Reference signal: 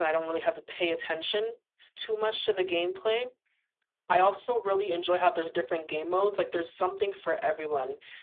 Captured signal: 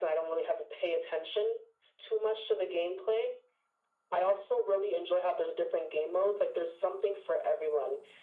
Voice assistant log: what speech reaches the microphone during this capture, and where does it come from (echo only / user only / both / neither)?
echo only